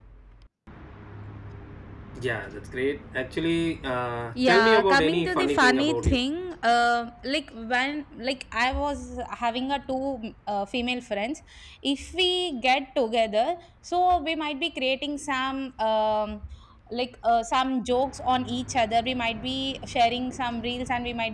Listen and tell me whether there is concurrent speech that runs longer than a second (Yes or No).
Yes